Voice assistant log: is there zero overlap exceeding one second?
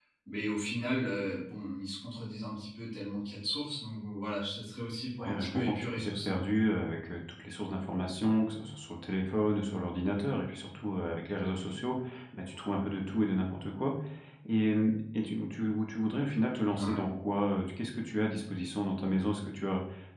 No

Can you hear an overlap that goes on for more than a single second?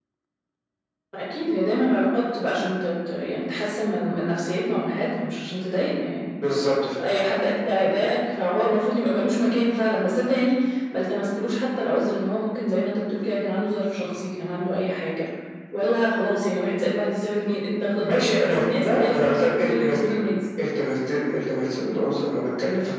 Yes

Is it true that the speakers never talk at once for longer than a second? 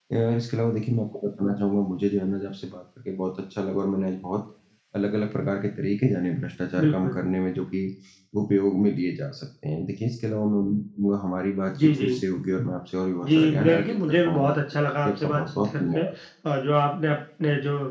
No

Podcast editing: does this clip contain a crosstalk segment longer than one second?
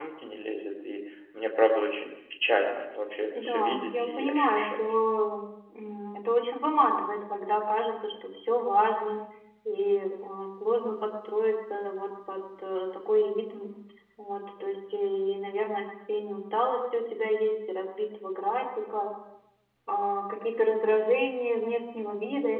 Yes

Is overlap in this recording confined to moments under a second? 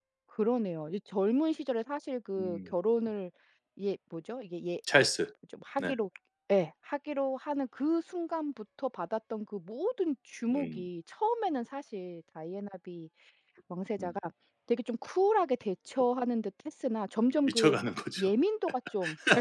Yes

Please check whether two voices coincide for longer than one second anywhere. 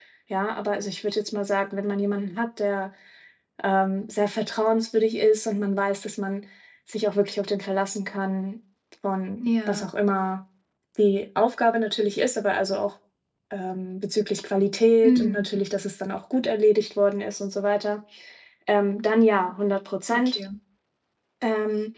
No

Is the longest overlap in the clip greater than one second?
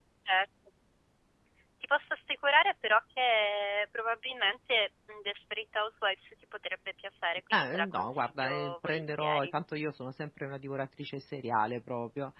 Yes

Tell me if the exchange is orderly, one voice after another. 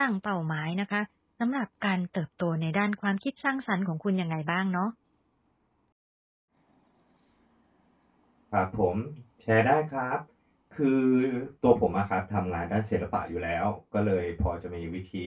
Yes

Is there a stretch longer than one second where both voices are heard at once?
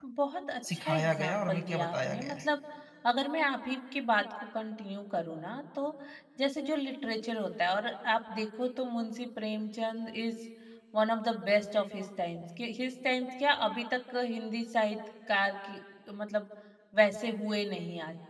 Yes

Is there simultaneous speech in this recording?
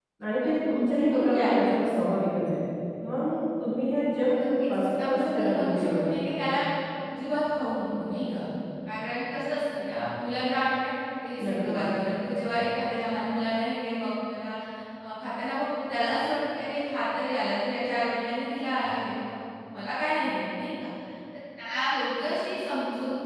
Yes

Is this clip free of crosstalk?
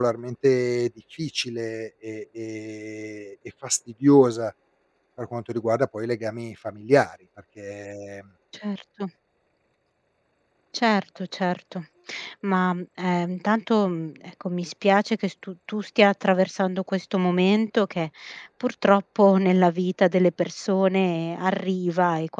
Yes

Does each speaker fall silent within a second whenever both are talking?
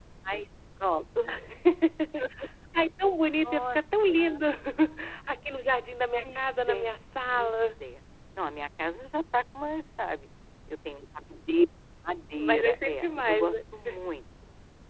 No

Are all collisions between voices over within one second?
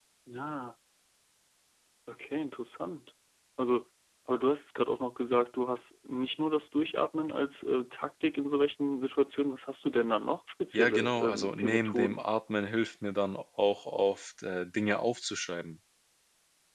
No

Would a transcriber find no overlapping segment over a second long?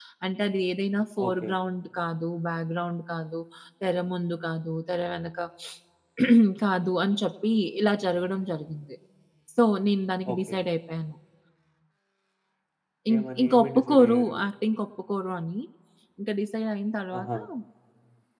No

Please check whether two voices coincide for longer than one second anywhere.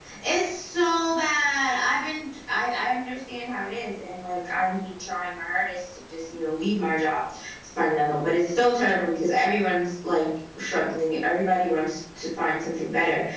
No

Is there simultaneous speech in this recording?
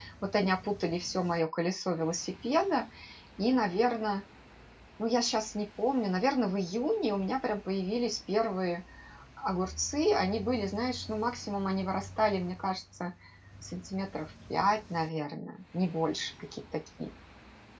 No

